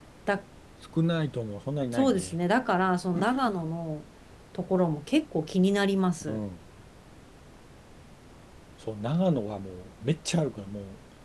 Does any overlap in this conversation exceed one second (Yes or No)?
No